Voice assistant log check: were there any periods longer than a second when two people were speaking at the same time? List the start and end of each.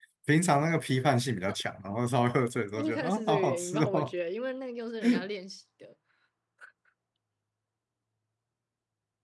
2.8-4.1

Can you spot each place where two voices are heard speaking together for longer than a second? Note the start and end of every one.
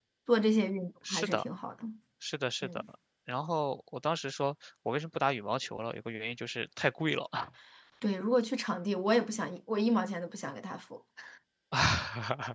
none

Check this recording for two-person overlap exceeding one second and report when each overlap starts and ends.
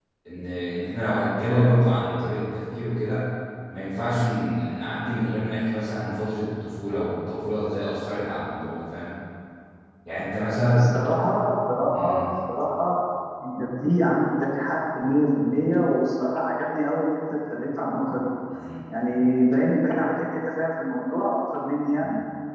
none

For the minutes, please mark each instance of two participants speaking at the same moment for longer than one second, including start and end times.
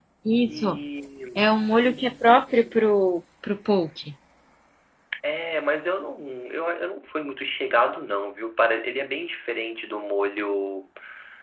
none

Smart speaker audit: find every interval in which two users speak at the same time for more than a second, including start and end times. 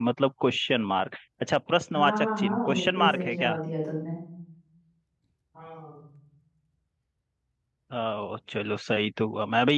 2.0-3.5

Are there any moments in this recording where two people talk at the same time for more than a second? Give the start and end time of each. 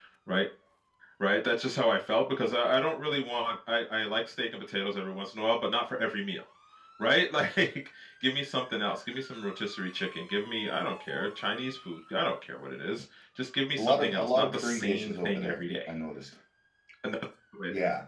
13.8-15.9

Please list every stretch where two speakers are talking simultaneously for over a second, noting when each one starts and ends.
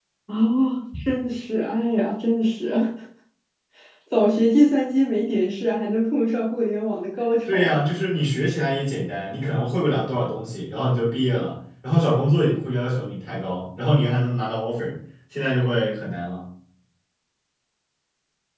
none

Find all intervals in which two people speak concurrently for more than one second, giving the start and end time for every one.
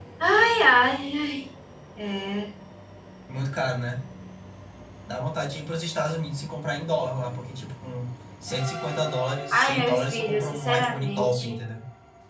9.5-11.6

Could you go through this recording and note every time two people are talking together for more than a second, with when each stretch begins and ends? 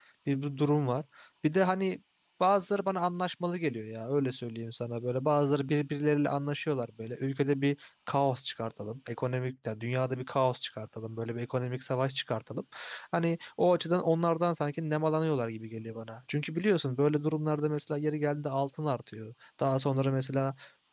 none

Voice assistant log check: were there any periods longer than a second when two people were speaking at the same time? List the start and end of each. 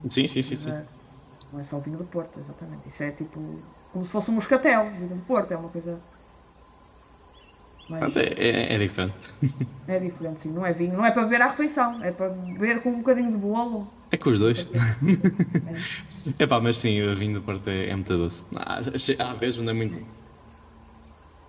none

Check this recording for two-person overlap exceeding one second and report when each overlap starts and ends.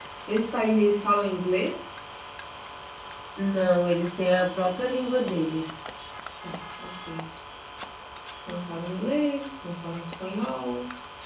none

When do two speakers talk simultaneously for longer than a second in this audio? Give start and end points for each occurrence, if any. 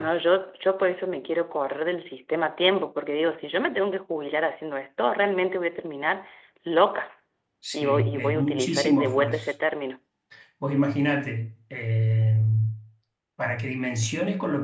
7.7-9.5

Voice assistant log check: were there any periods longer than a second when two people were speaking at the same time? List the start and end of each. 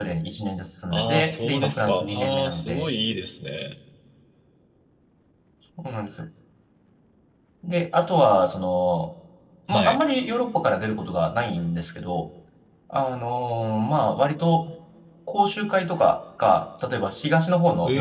0.9-2.9

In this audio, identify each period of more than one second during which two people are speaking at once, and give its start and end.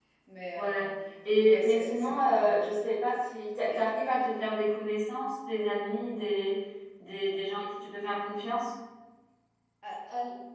1.4-2.7

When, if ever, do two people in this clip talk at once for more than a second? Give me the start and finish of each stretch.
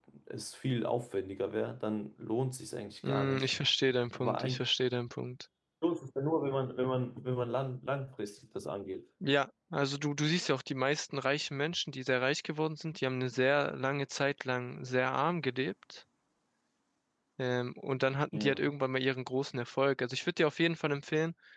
none

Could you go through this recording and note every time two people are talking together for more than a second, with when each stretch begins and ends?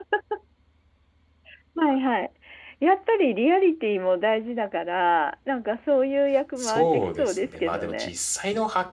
6.6-8.1

